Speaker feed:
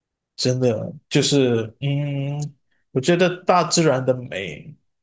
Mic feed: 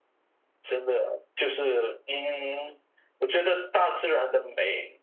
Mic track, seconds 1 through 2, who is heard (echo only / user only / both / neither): echo only